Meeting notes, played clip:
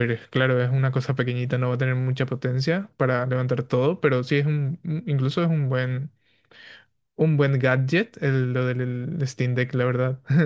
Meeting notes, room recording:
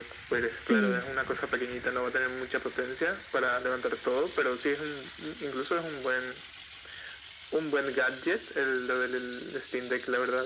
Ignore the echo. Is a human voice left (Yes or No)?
Yes